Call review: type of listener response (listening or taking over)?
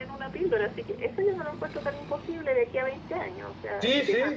taking over